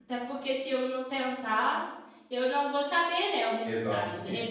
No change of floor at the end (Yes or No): Yes